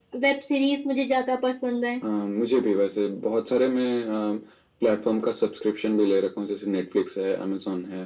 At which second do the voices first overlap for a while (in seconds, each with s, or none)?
none